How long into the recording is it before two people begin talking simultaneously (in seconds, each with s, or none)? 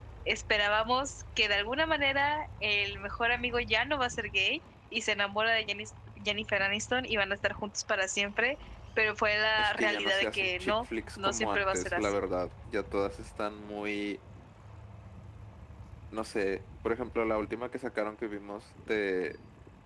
9.6 s